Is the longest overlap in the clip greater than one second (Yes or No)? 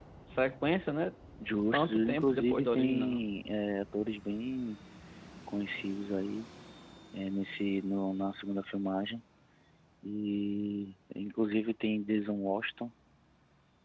Yes